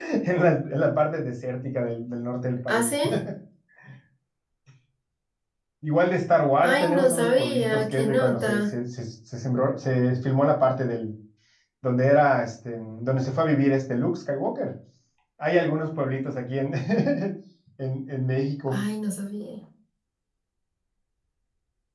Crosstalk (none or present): present